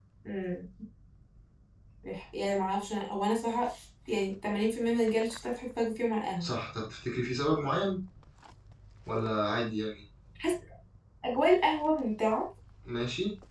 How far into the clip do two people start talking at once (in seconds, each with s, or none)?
none